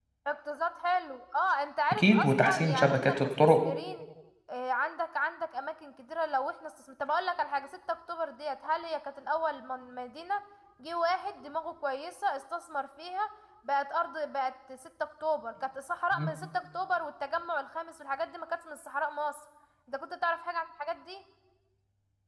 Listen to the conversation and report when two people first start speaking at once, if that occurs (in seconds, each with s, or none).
1.9 s